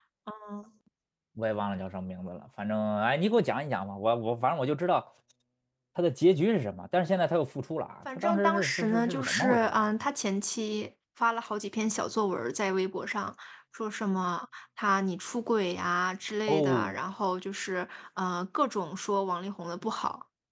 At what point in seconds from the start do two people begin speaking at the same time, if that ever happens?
8.2 s

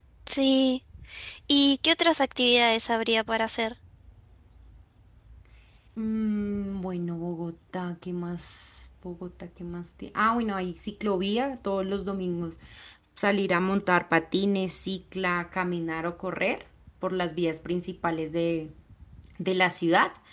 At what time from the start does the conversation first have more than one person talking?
none

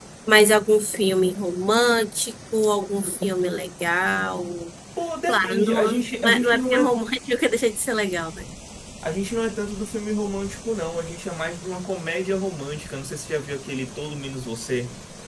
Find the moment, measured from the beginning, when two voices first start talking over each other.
5.3 s

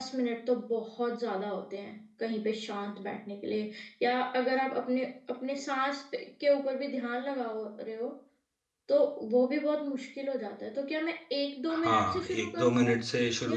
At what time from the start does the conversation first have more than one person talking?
11.7 s

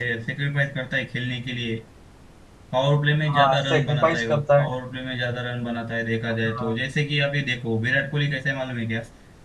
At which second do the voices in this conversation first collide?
3.3 s

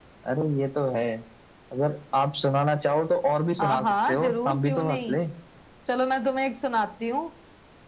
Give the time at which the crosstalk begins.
3.6 s

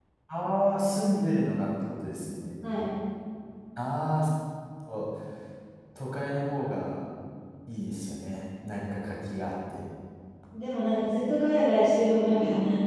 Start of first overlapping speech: none

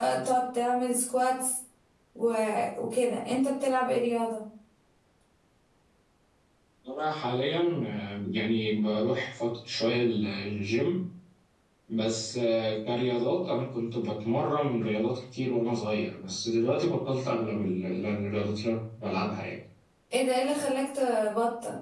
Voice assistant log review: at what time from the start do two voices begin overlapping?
none

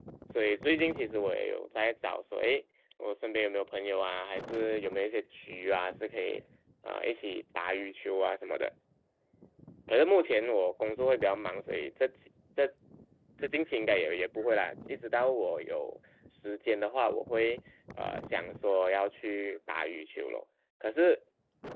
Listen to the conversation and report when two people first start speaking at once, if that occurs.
none

